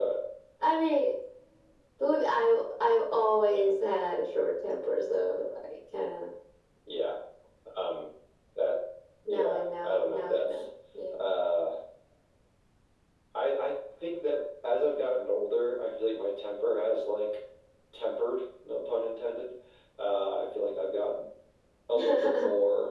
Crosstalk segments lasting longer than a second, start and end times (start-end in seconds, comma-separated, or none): 9.3-10.7